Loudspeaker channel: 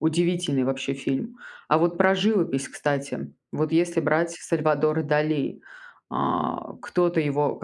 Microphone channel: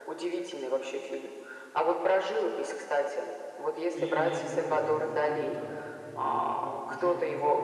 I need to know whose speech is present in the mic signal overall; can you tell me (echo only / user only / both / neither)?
both